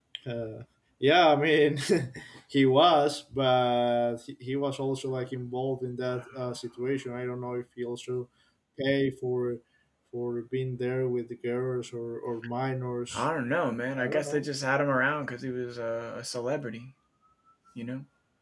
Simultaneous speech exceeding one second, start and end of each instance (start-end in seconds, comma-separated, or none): none